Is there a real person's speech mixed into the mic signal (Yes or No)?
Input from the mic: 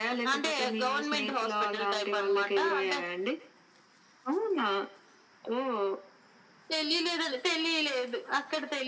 No